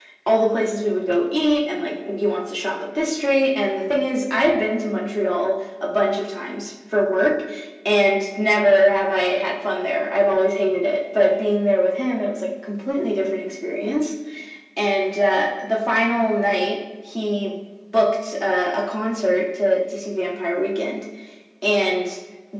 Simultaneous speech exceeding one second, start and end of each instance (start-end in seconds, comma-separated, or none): none